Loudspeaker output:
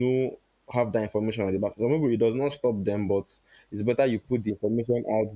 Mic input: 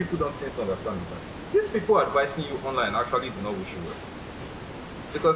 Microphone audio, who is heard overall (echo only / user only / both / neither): user only